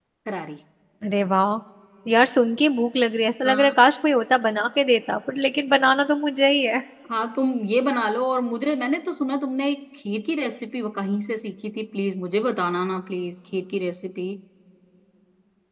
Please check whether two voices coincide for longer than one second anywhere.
No

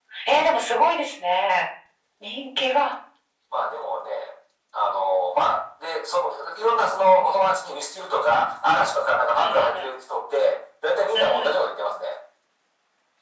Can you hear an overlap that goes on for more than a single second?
No

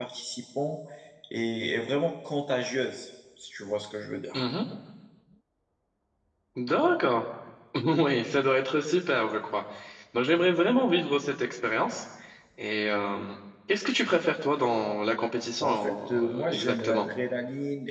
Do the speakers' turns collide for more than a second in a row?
Yes, from 15.6 s

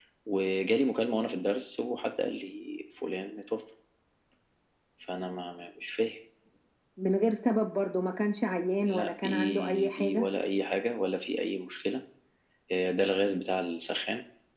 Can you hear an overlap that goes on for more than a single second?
Yes, from 8.8 s

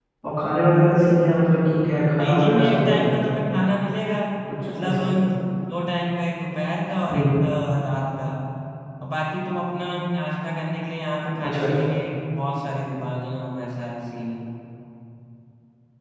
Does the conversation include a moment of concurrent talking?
Yes, from 1.9 s

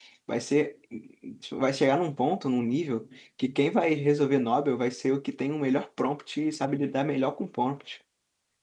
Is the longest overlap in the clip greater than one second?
No

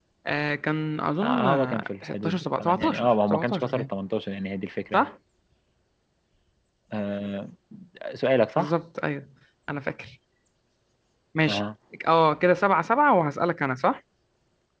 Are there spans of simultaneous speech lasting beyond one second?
Yes, from 1.2 s

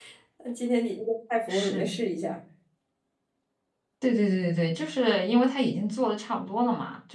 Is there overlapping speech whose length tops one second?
No

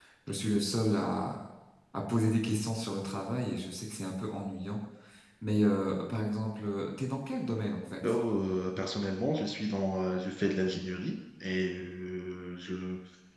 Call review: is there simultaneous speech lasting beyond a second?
No

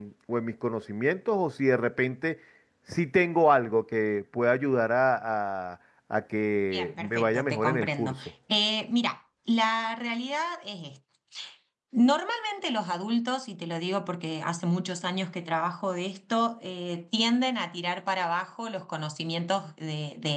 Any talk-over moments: Yes, from 6.7 s

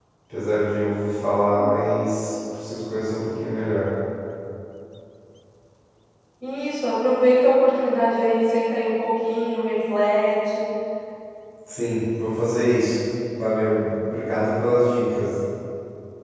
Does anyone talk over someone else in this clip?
No

